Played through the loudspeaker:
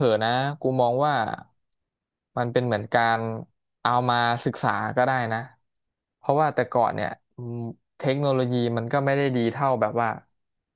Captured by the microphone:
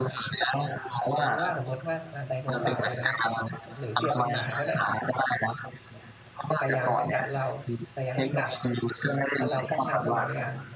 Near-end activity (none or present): present